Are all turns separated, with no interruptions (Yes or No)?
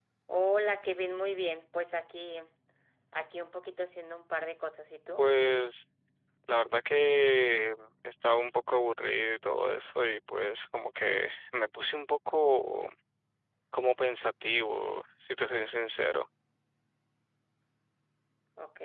Yes